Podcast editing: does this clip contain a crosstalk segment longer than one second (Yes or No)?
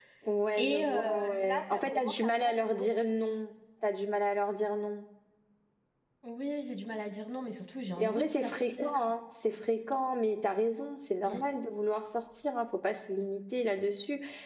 Yes